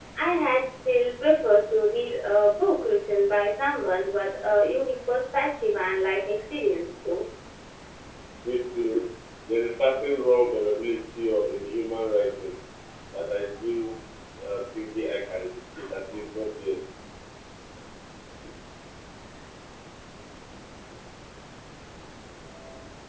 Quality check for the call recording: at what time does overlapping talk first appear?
none

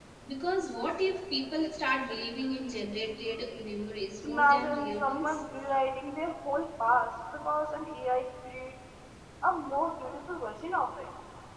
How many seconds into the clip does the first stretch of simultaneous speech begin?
4 s

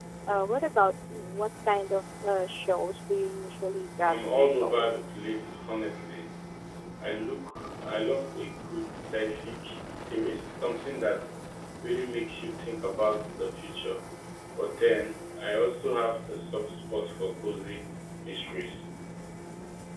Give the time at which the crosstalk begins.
4 s

